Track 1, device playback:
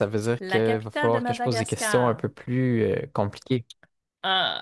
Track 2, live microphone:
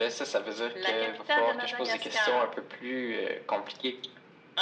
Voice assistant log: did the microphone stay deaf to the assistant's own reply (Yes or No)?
No